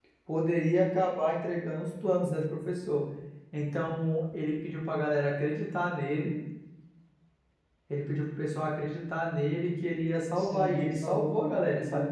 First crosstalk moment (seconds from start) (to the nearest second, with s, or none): 10 s